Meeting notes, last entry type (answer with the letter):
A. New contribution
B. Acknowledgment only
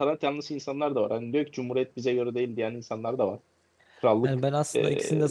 A